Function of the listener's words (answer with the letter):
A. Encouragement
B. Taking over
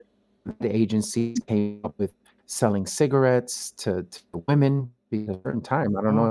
A